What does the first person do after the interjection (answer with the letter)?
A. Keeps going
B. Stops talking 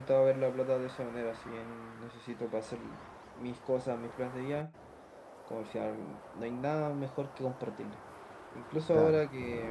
A